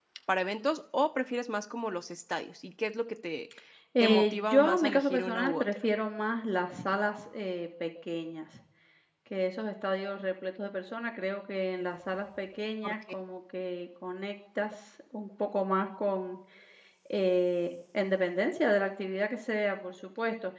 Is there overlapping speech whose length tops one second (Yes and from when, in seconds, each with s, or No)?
Yes, from 4.0 s